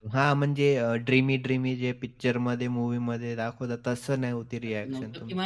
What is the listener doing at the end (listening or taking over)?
taking over